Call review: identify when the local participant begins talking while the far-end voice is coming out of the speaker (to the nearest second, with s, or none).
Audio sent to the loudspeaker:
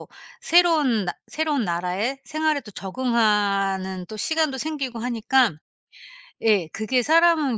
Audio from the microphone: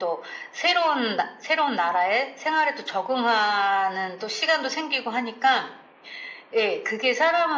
none